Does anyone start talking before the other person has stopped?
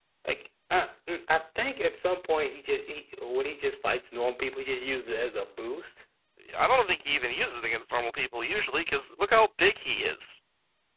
No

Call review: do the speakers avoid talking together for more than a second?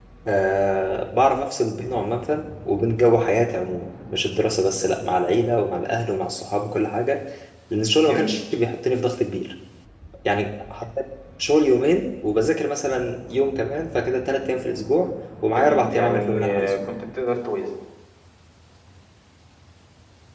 No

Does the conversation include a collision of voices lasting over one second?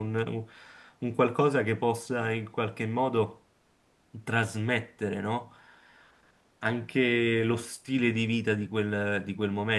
No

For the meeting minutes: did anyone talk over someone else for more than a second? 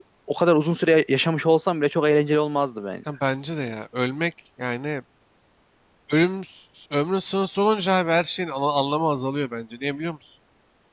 No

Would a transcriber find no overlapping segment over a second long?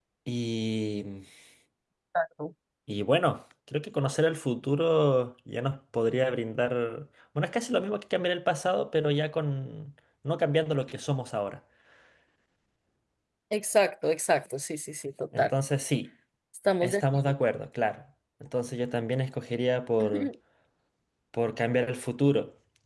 Yes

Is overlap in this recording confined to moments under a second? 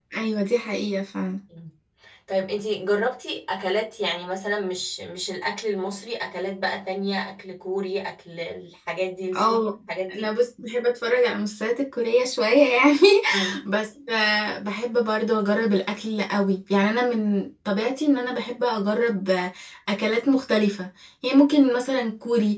Yes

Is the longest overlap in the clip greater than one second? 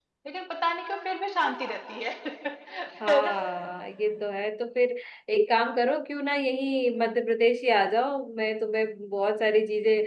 No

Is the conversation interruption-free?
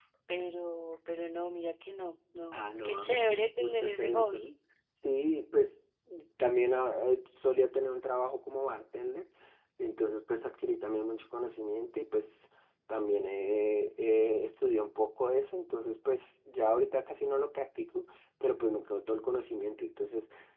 No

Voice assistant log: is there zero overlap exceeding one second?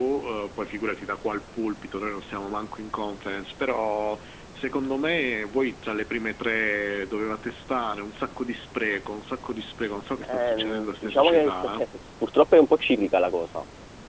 No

